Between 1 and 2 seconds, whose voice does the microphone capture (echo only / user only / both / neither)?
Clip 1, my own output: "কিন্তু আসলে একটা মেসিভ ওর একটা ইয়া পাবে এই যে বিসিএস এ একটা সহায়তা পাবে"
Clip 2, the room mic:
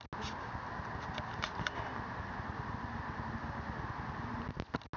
neither